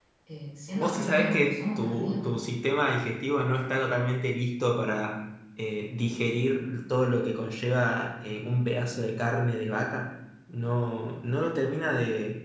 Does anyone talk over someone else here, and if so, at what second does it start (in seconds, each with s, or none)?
0.7 s